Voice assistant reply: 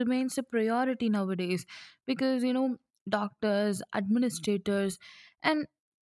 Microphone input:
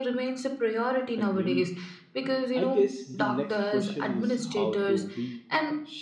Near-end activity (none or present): present